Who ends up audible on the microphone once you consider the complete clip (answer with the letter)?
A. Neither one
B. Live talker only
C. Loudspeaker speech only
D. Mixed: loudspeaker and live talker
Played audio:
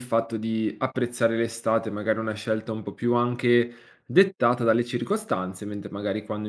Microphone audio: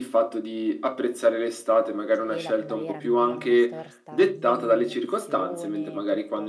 D